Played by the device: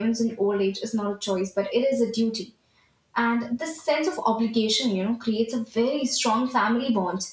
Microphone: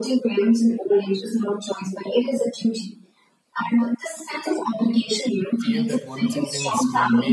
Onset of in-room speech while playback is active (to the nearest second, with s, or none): 6 s